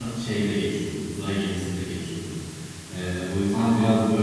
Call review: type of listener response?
listening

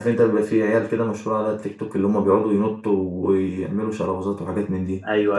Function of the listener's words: taking over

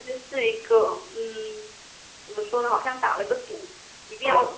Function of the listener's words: listening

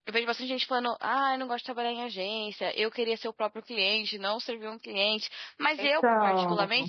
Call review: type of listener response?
listening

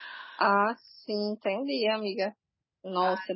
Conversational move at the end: listening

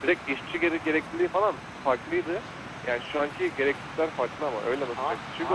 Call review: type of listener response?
listening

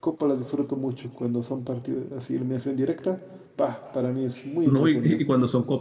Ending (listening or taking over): taking over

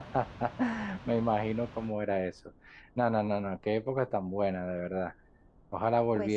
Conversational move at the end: listening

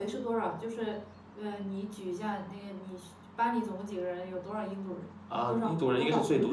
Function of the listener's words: taking over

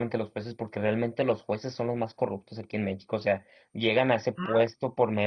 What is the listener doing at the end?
listening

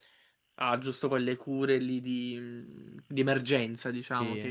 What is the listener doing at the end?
listening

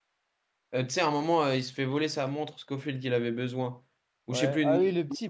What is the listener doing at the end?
taking over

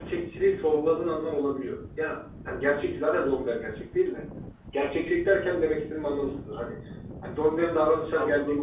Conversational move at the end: listening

